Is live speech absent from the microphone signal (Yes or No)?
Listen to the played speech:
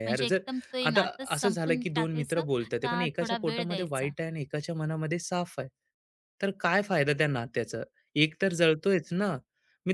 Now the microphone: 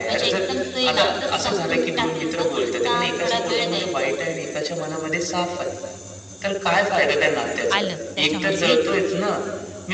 No